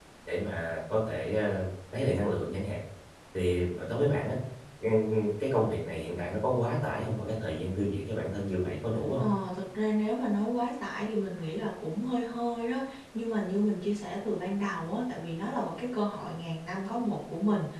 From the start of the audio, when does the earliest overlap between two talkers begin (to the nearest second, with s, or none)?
none